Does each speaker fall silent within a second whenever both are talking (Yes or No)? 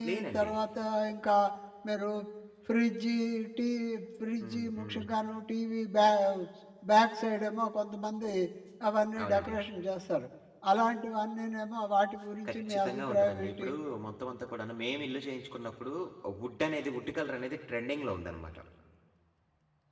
No